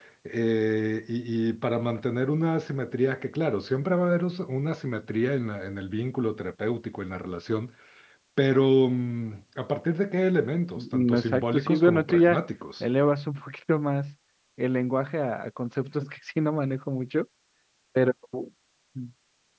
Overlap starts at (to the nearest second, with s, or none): 11 s